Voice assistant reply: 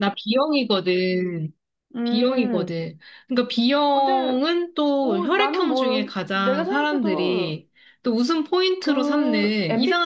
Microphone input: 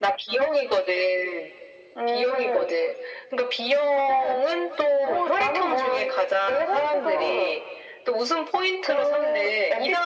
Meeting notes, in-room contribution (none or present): none